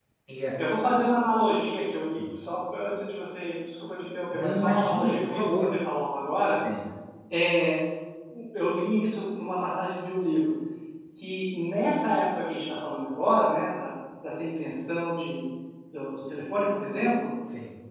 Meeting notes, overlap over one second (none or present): present